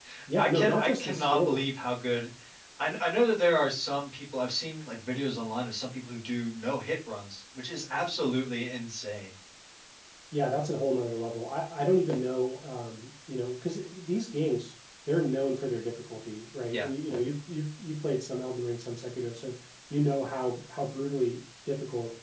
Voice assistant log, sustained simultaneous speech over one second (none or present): present